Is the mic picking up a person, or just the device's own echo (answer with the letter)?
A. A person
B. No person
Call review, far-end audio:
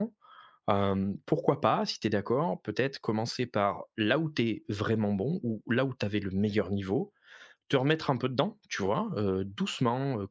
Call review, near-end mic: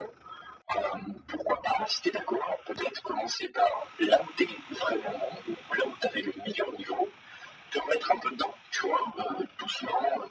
B